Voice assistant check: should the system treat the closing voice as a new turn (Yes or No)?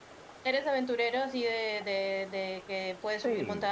Yes